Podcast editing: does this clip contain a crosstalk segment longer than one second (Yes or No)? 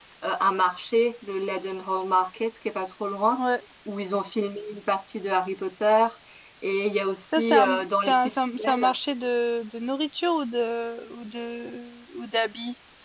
Yes